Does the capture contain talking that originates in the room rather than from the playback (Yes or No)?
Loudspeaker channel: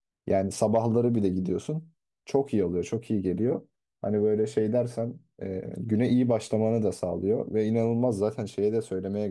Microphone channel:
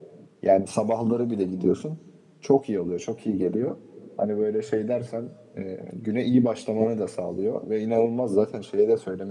No